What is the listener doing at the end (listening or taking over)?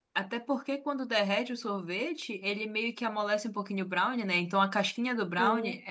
listening